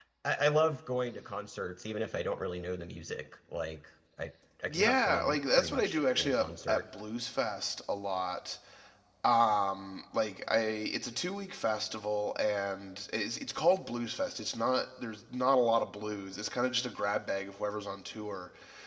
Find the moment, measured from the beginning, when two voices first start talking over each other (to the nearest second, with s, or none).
5 s